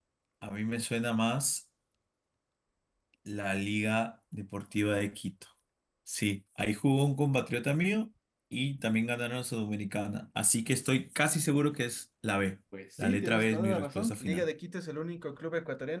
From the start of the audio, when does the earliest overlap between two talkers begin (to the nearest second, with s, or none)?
13 s